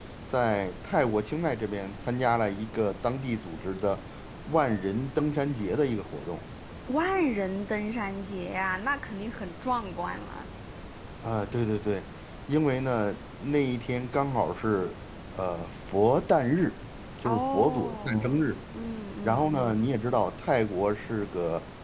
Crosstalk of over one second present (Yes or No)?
Yes